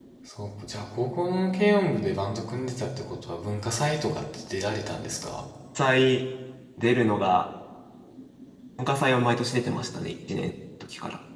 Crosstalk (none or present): none